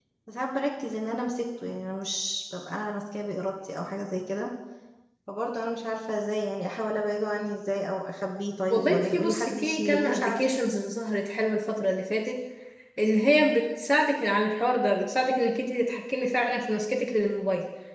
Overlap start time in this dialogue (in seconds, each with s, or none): 8.7 s